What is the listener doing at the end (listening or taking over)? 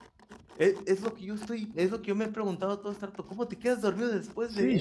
taking over